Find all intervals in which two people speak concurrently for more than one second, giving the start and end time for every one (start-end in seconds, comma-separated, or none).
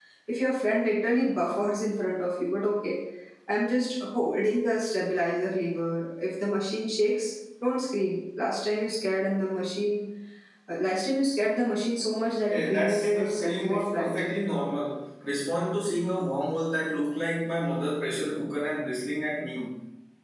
12.5-14.1